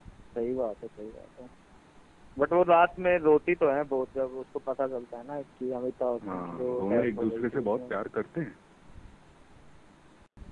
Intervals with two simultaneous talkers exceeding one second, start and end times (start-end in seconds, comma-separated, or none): 6.3-7.9